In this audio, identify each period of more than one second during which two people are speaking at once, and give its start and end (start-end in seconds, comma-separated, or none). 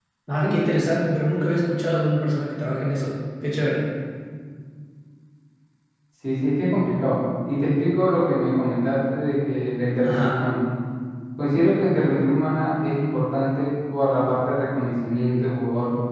none